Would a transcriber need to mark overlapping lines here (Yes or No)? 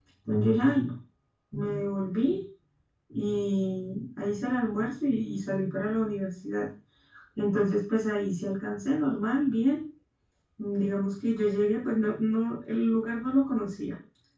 No